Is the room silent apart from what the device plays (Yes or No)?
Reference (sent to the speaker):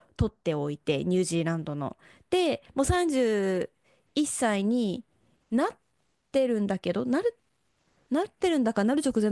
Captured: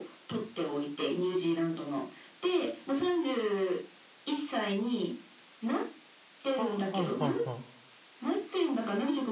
No